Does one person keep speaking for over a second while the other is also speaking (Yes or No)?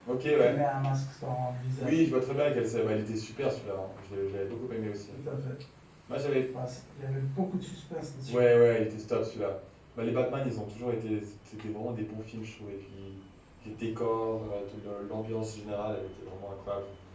No